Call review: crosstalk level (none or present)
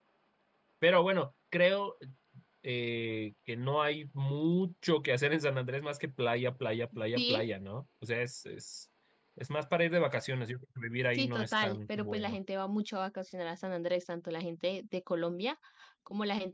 present